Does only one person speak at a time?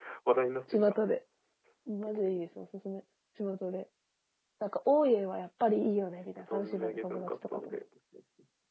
No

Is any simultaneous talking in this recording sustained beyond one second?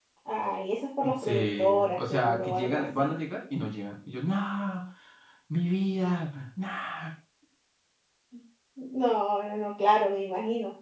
Yes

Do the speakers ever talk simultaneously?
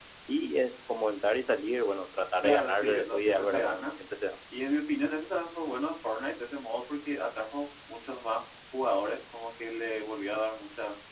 Yes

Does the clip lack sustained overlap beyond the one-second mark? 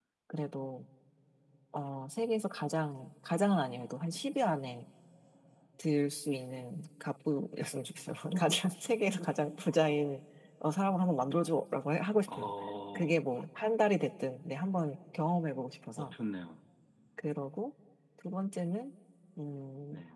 Yes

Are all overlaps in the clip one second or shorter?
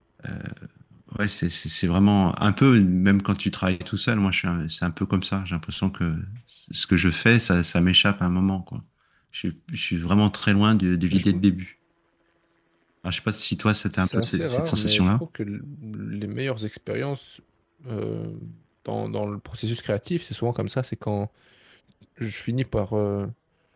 No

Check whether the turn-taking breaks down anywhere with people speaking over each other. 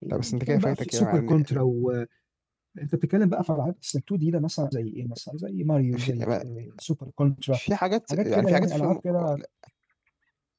Yes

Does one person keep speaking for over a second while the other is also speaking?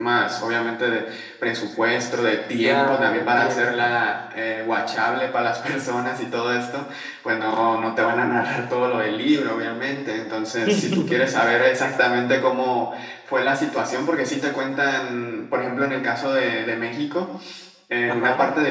Yes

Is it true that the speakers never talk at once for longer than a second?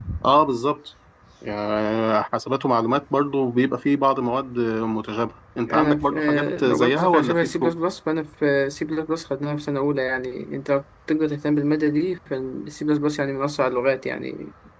No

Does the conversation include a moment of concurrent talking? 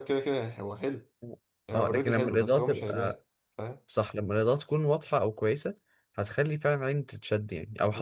Yes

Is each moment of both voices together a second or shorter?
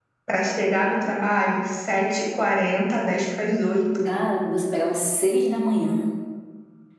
Yes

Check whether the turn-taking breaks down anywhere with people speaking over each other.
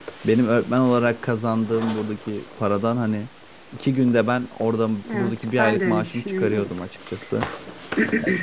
Yes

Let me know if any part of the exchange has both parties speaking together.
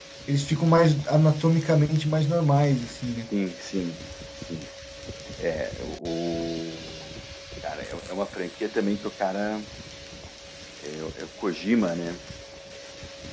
No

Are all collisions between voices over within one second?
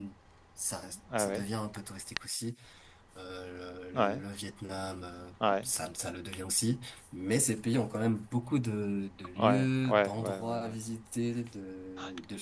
No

